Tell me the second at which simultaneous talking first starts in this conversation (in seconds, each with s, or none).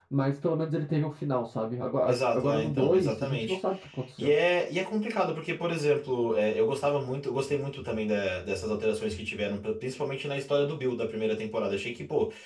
2.0 s